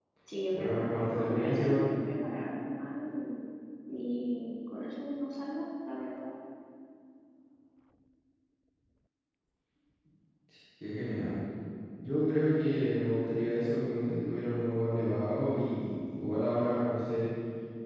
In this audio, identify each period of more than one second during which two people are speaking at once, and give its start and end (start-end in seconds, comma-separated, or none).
0.5-2.0